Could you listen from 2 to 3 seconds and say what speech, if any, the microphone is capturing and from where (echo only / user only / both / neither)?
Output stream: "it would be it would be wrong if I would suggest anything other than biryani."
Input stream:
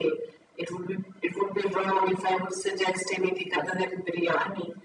echo only